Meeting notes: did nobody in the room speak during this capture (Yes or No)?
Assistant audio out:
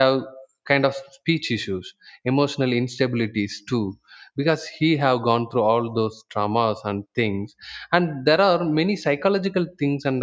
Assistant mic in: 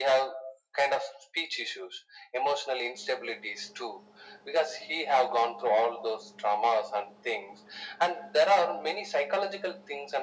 Yes